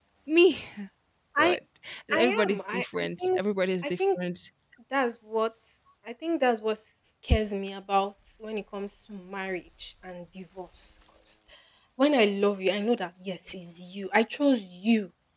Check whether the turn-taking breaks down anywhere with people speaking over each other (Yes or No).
Yes